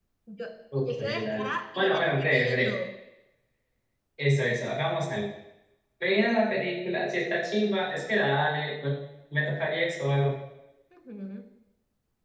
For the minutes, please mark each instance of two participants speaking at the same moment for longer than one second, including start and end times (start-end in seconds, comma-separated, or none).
0.8-2.7